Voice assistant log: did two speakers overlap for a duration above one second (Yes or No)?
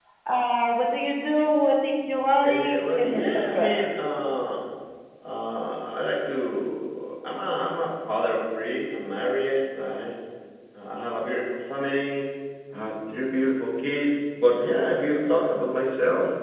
Yes